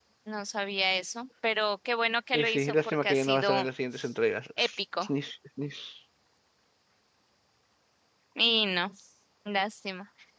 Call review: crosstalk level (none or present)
present